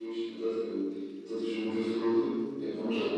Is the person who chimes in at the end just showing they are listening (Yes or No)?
Yes